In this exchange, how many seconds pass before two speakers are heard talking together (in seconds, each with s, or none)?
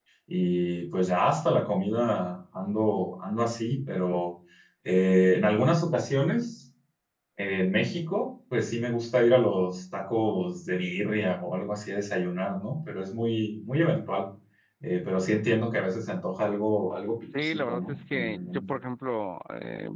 17.3 s